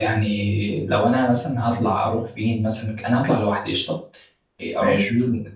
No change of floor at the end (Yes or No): Yes